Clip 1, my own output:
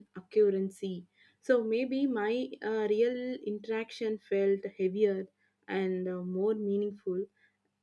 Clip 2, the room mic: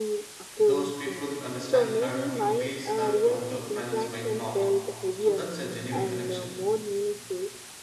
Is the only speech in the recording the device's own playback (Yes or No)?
No